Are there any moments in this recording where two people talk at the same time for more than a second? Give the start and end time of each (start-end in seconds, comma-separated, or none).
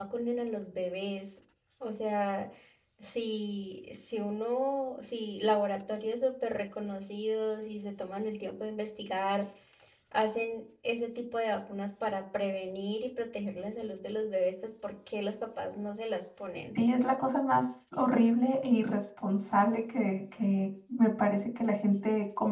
none